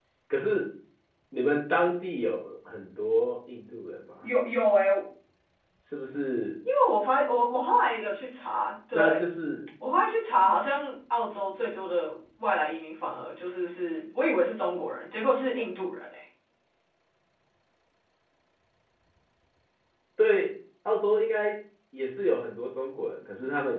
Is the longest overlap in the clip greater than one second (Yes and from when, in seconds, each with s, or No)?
No